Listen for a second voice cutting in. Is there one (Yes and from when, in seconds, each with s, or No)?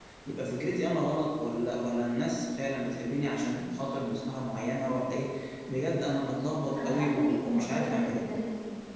Yes, from 6.7 s